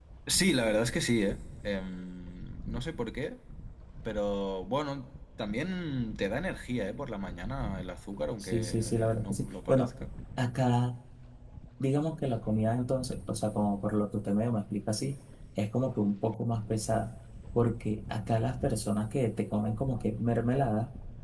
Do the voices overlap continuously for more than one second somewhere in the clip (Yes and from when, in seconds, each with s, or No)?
Yes, from 8.4 s